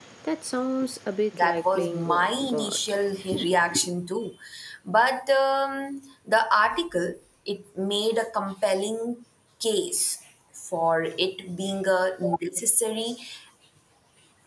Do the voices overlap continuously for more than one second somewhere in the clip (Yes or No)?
Yes